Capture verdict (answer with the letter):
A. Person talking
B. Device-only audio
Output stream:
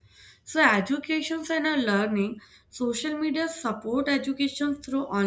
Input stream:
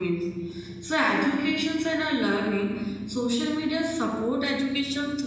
B